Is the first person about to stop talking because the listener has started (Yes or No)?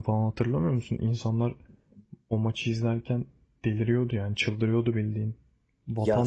No